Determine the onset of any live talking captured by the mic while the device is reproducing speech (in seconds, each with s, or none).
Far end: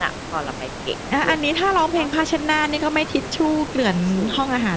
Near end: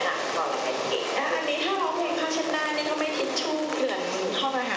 none